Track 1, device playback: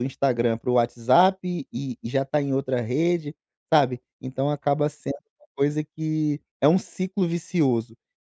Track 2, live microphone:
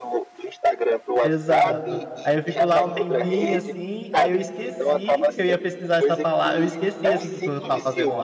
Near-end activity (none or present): present